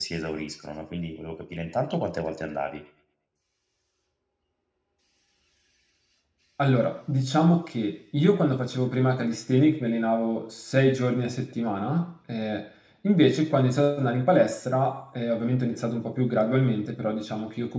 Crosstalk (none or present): none